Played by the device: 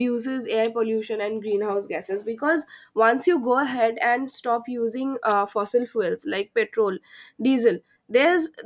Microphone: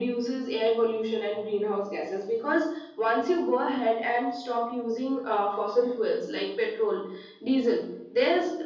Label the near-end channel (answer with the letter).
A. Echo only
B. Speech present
A